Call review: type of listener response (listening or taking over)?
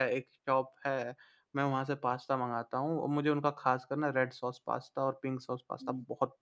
listening